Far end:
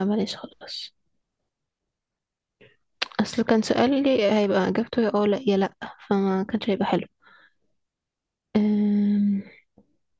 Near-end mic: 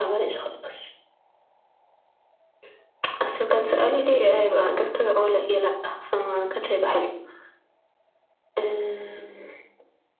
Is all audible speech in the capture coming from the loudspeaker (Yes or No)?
No